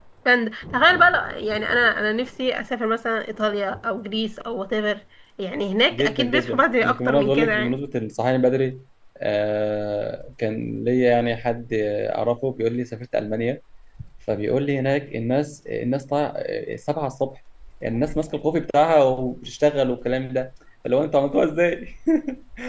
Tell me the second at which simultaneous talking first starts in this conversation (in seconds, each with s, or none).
5.9 s